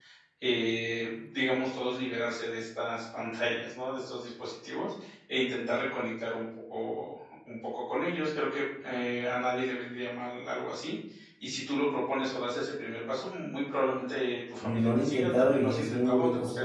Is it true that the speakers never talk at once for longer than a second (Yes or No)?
No